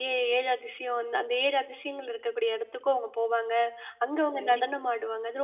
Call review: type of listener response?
listening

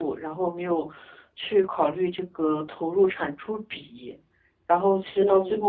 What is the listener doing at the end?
listening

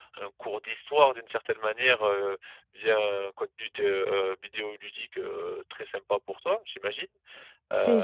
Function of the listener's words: taking over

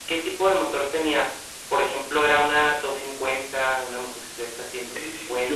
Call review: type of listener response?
taking over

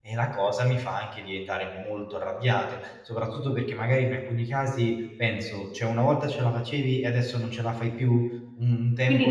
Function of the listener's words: taking over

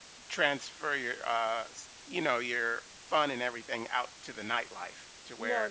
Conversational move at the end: taking over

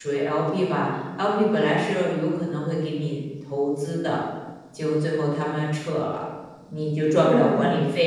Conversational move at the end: listening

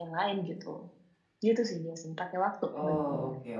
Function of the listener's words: taking over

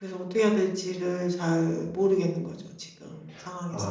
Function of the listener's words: taking over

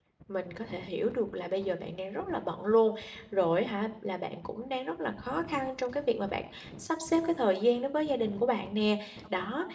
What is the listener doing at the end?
listening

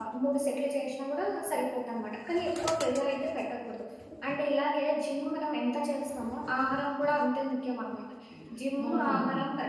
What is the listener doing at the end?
listening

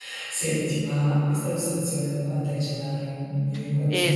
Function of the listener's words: taking over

